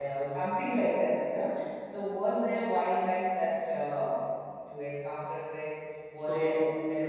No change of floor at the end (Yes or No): Yes